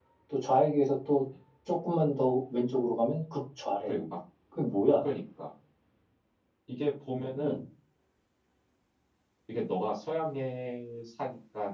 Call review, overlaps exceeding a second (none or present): none